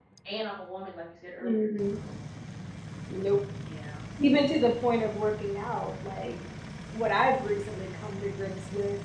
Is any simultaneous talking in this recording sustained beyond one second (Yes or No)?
No